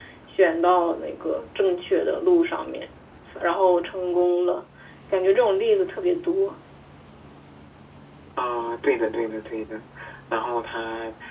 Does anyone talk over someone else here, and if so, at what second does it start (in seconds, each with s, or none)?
none